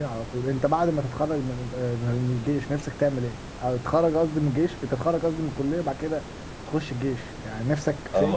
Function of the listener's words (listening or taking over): taking over